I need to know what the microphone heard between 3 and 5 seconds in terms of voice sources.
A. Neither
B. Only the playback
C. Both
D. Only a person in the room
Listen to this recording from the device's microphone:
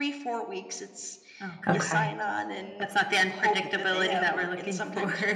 B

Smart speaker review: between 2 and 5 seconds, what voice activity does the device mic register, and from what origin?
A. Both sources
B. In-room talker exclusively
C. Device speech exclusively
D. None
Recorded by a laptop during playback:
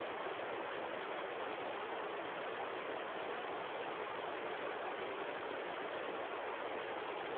D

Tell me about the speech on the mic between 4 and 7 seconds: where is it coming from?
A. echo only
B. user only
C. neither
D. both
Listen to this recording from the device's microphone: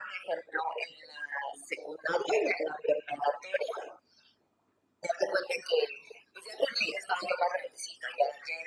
A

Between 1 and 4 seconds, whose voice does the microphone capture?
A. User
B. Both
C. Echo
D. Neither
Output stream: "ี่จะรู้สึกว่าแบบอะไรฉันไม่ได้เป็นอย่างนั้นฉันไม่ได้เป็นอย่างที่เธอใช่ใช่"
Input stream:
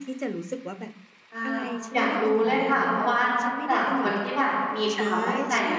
B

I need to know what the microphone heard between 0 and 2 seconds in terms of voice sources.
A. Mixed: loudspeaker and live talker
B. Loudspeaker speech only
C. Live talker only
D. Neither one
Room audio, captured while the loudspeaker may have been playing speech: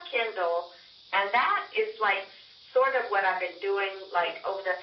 B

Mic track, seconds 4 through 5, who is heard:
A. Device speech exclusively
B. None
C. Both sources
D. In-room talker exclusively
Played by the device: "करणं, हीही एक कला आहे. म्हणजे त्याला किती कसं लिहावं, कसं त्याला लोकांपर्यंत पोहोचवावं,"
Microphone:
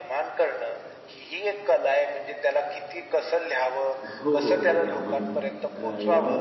C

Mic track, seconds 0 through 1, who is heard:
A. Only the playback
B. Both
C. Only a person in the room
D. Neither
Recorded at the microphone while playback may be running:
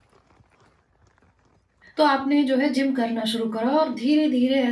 D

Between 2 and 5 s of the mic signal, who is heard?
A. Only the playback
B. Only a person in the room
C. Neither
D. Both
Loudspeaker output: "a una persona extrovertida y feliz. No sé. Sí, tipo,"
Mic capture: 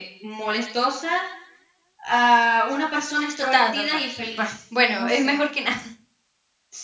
D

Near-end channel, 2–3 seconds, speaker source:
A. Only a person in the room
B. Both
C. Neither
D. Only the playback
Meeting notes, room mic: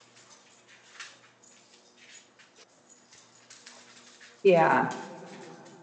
C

